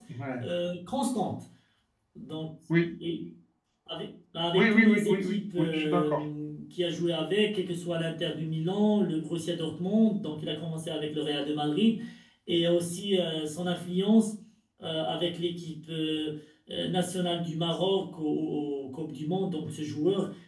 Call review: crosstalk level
present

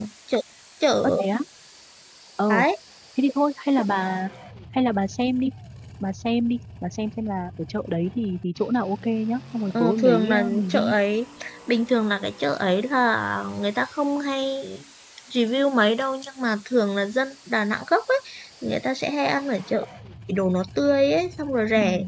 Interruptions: present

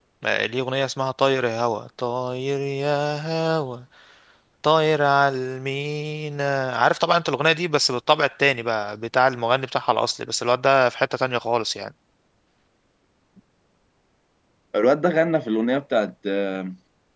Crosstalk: none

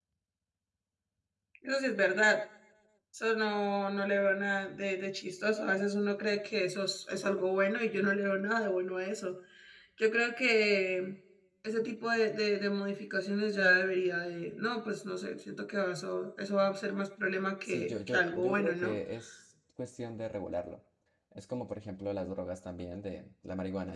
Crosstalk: present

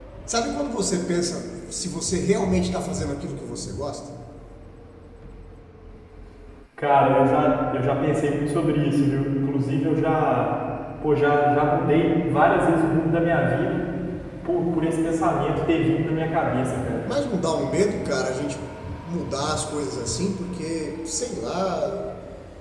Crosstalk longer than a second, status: none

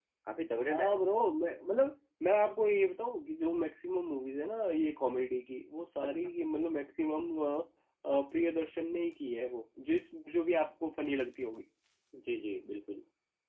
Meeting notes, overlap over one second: none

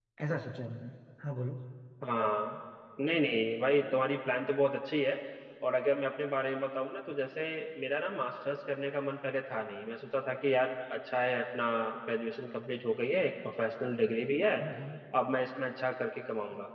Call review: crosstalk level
none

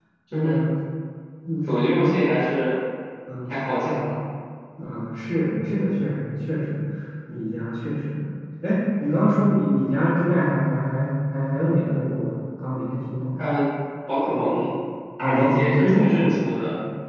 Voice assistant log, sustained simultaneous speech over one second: present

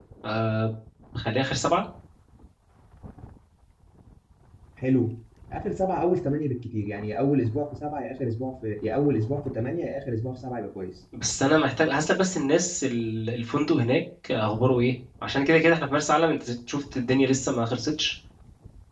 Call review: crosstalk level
none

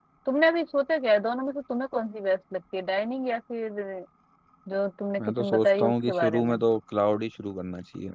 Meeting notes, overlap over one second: present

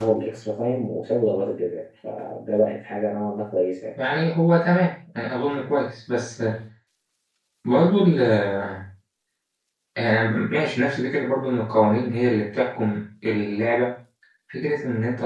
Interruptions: none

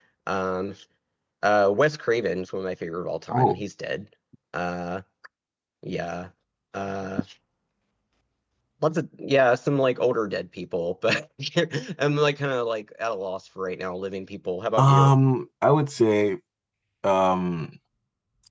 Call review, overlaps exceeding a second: none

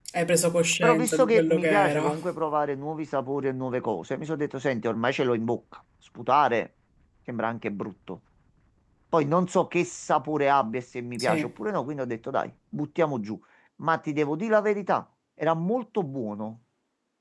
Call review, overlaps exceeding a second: present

